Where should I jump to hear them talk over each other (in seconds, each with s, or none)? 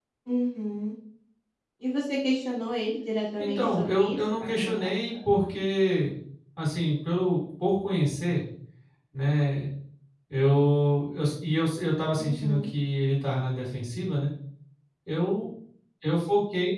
3.4 s